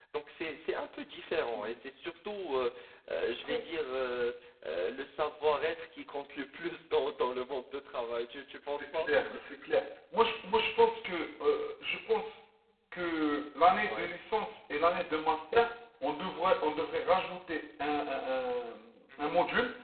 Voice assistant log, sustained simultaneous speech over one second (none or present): none